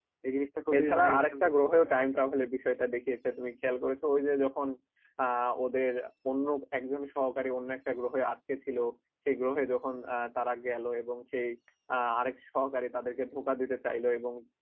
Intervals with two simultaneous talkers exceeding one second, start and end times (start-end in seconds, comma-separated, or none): 0.8-2.2